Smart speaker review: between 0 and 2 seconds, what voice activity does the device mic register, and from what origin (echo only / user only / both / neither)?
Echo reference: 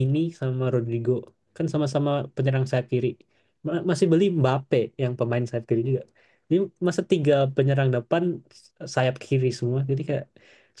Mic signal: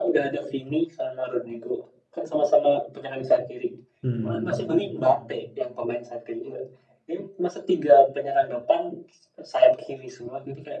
echo only